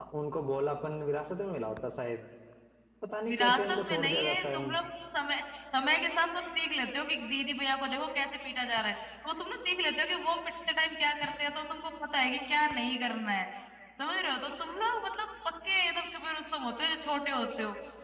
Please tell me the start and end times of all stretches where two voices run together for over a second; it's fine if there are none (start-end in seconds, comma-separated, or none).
3.3-4.6